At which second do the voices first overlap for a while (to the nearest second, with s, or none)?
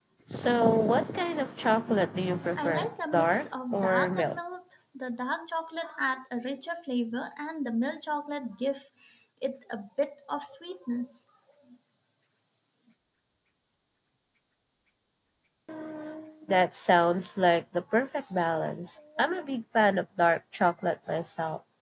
3 s